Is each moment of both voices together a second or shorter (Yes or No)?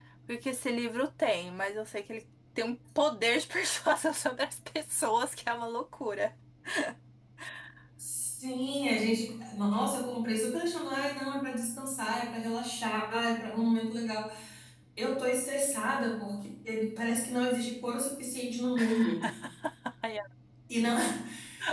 Yes